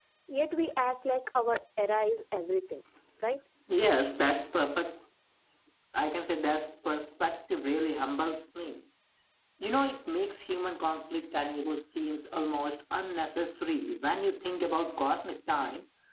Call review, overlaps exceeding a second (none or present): none